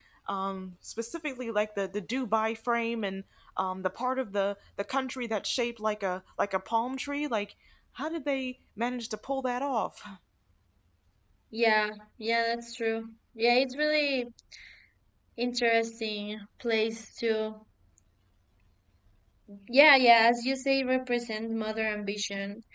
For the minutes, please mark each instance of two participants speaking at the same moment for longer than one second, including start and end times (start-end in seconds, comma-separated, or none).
none